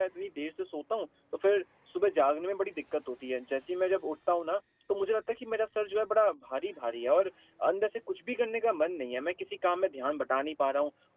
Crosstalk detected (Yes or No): No